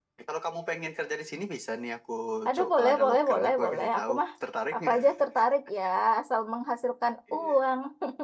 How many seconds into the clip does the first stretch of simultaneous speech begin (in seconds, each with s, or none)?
2.5 s